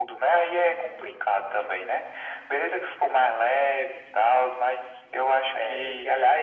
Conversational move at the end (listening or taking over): taking over